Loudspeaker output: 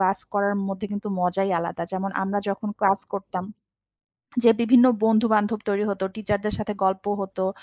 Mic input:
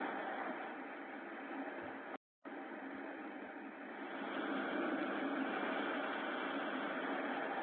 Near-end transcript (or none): none